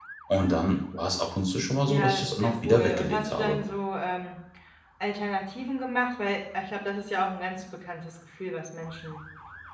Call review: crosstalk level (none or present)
present